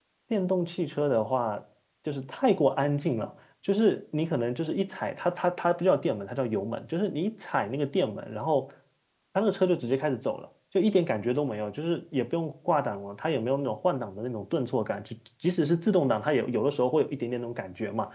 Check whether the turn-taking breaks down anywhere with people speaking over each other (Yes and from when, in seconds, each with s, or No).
No